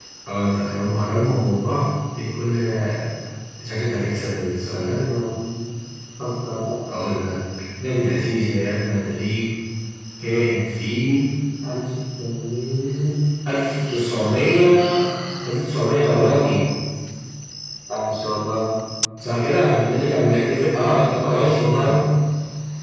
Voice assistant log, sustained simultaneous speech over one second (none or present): present